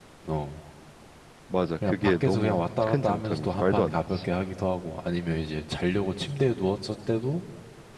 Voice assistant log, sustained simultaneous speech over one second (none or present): present